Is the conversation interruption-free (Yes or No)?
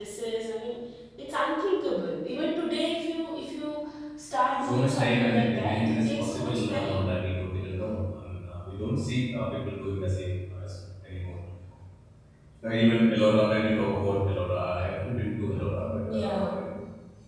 No